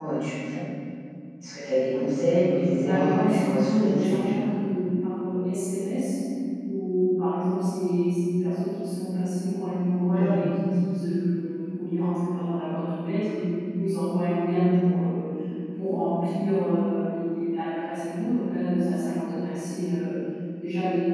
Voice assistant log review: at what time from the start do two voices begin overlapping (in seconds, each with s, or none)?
2.6 s